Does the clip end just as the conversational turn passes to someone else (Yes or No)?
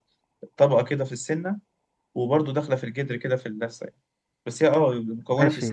Yes